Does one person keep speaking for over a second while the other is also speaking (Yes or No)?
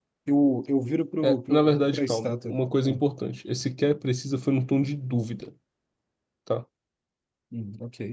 Yes